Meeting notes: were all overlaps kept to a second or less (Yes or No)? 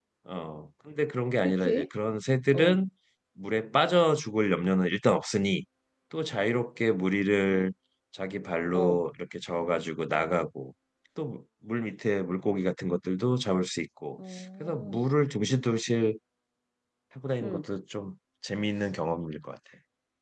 Yes